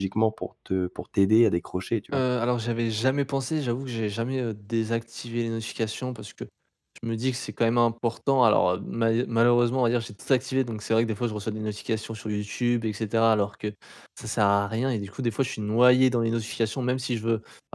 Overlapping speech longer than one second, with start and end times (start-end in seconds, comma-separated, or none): none